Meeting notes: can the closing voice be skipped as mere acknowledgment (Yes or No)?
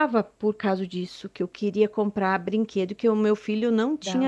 Yes